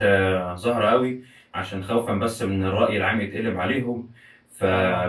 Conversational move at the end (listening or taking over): listening